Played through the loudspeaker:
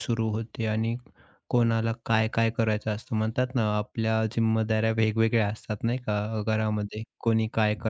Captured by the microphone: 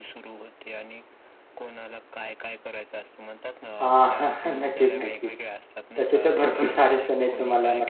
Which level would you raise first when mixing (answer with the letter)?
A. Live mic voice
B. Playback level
B